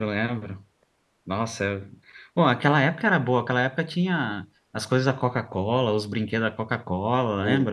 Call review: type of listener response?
taking over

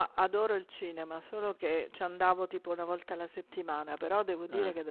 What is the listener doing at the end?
listening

